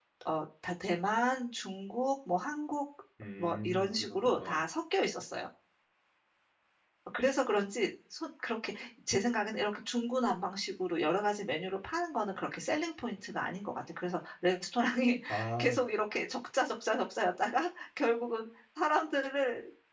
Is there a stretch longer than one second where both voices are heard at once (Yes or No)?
Yes